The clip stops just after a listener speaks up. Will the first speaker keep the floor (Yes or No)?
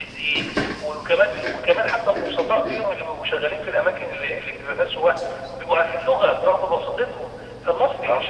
Yes